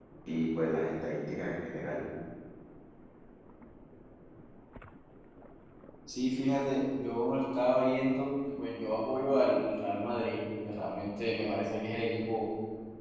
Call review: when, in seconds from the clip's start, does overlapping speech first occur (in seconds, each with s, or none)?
none